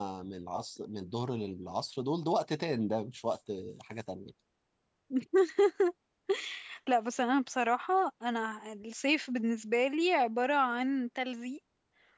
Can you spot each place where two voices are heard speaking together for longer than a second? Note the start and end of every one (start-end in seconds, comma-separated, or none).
none